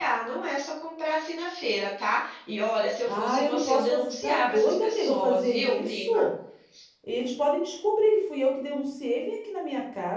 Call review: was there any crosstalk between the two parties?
Yes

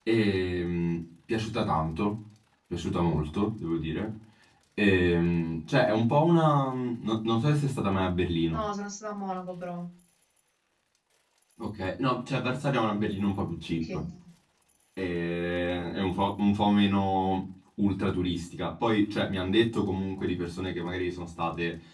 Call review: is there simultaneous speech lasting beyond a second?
No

